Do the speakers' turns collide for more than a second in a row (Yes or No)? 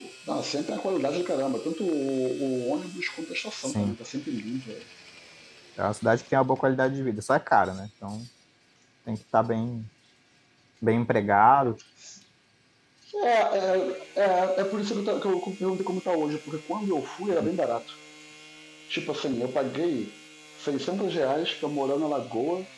No